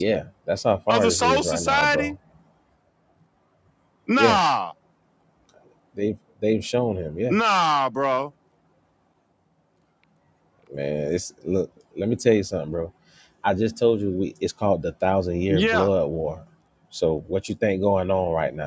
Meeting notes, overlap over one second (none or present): present